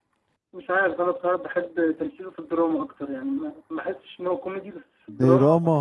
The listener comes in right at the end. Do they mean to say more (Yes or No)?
Yes